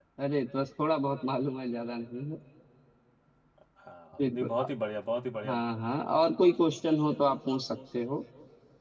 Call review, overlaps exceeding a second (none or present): none